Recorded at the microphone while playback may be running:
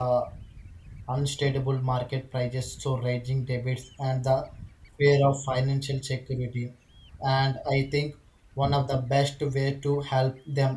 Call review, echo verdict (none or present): none